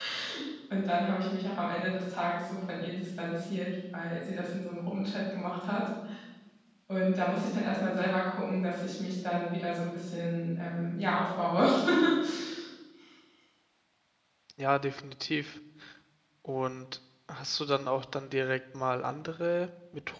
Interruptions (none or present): none